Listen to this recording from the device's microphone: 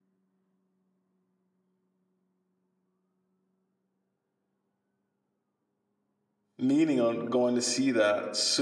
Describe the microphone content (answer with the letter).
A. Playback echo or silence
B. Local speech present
B